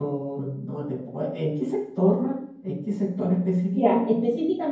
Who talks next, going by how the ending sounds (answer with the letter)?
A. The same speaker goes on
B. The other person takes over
B